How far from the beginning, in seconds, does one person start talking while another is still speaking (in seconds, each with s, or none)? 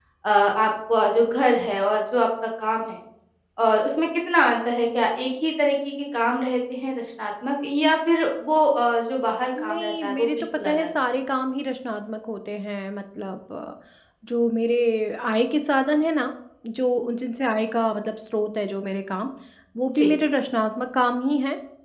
9.6 s